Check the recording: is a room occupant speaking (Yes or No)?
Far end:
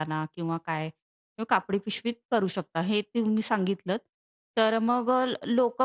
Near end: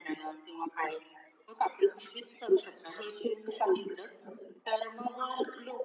No